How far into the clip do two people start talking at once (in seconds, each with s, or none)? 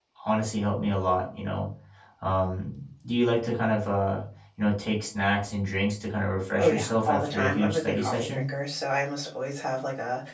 6.6 s